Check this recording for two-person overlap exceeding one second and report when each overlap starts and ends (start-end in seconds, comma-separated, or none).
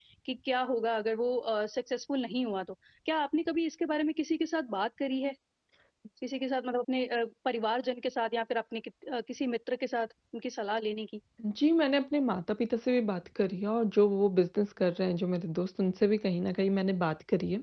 none